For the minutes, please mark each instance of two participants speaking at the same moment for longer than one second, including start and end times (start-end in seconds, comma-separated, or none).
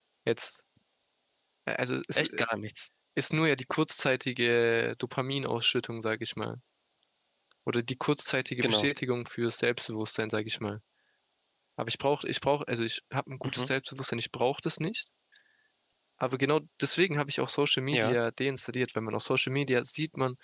none